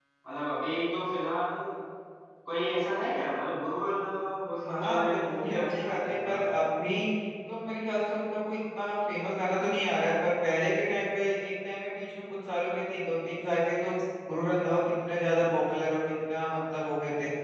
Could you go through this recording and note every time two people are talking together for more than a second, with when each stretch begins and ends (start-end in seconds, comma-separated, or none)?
4.5-6.4